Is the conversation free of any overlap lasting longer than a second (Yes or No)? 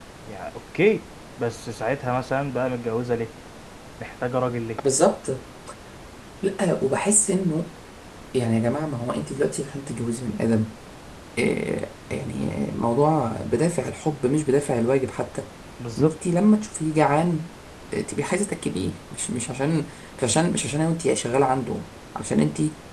Yes